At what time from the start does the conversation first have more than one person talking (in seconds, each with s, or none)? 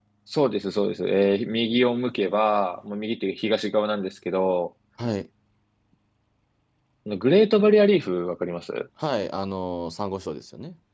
none